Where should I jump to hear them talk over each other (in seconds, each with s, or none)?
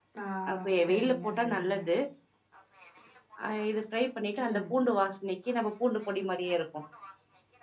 0.5 s